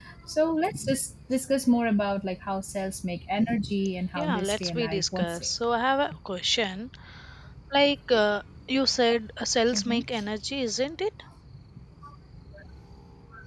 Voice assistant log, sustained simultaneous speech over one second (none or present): present